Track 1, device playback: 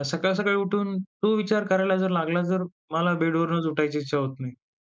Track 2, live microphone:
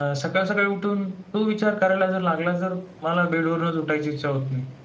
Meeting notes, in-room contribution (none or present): none